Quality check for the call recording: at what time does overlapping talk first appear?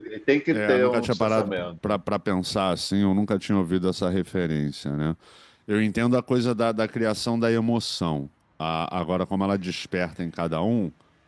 0.5 s

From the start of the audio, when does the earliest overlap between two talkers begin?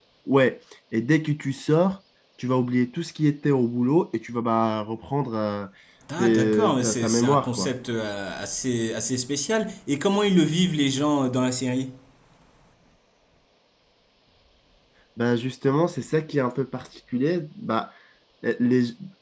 6.2 s

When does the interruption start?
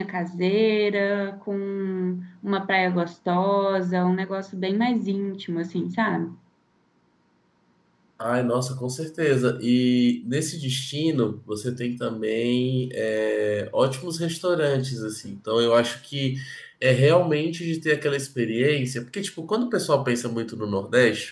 none

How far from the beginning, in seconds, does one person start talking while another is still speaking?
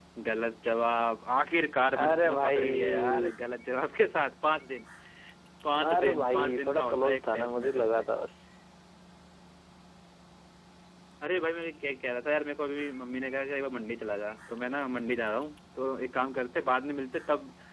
2.0 s

